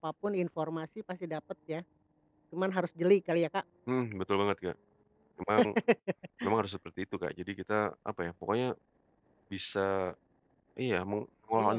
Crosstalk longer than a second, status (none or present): none